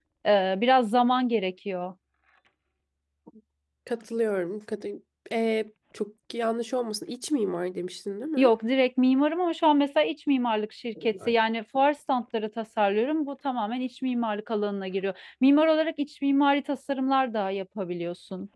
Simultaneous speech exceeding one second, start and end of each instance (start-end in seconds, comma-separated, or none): none